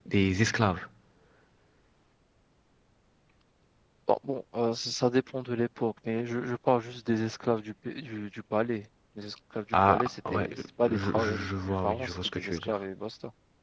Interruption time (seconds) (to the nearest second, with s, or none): 10 s